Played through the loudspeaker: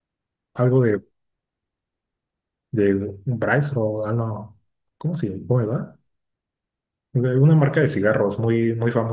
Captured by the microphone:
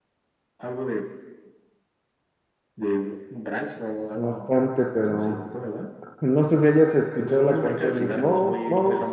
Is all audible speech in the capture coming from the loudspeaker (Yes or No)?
No